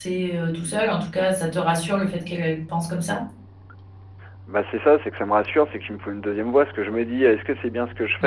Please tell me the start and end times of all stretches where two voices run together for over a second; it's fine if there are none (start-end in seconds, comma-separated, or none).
none